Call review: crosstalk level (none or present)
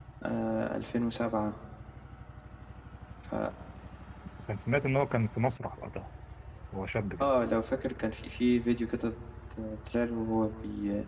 none